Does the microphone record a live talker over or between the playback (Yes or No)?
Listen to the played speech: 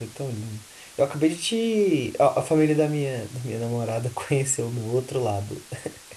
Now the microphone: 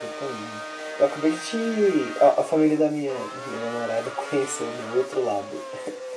No